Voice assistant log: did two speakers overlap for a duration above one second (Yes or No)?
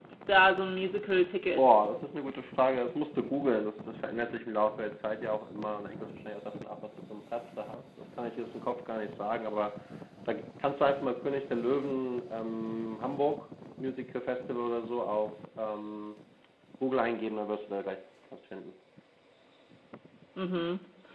No